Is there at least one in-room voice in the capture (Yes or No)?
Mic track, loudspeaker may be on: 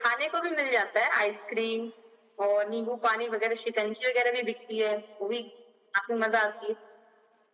No